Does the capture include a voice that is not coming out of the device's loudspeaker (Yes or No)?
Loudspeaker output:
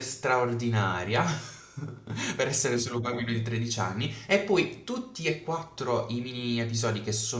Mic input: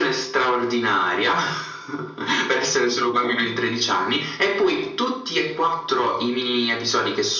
No